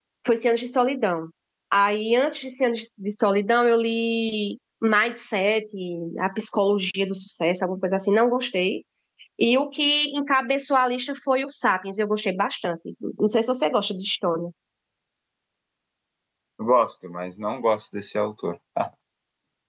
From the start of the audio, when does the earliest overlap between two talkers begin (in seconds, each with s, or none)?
none